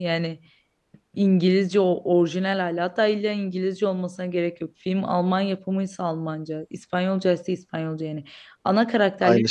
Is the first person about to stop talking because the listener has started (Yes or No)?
No